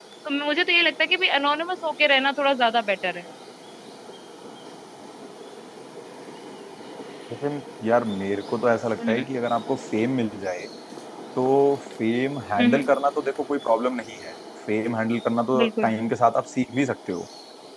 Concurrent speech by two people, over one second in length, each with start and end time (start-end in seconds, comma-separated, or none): none